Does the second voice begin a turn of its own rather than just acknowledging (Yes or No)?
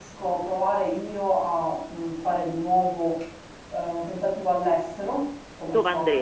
No